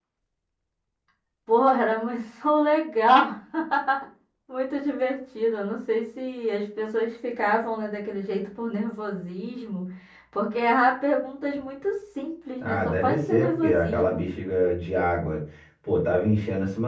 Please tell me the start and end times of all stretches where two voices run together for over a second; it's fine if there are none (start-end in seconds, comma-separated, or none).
12.6-14.2